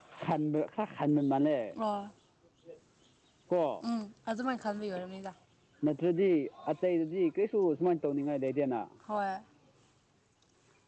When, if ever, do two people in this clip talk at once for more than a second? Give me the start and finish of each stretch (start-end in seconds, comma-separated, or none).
none